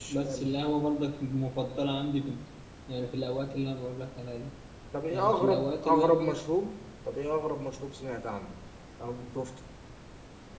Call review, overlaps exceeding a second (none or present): present